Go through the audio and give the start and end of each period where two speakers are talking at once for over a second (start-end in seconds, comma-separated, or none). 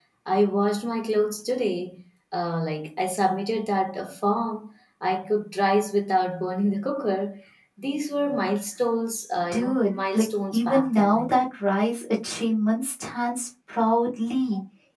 9.5-11.3